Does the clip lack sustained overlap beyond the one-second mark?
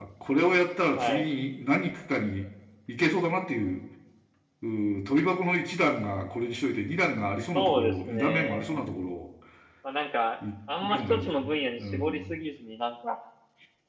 No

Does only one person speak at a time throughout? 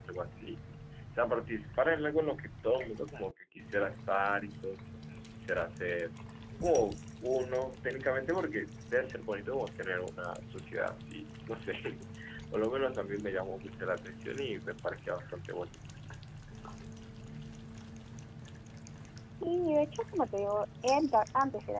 Yes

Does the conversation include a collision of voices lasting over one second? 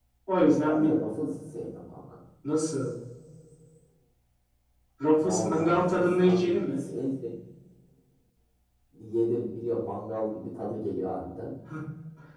Yes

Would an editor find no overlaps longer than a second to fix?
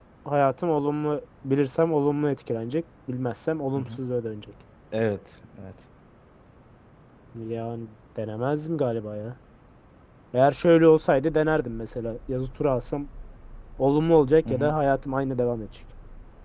Yes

